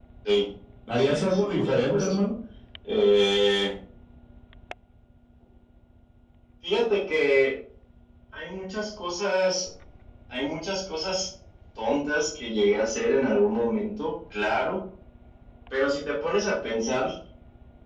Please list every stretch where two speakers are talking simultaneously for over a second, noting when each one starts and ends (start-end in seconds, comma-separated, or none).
1.0-2.2